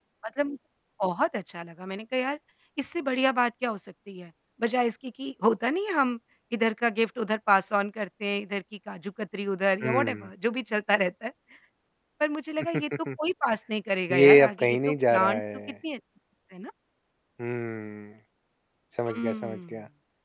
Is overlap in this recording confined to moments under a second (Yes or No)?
No